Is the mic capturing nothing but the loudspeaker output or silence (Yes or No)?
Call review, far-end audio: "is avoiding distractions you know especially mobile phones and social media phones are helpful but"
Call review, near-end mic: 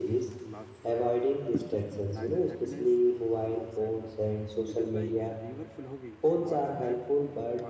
No